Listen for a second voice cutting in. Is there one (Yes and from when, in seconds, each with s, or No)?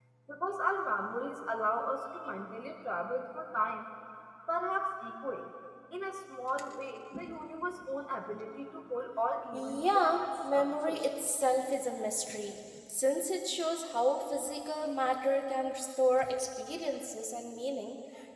Yes, from 9.5 s